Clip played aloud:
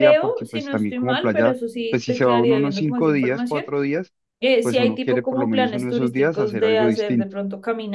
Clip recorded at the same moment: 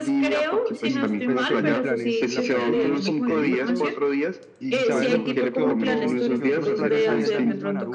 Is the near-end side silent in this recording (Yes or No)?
No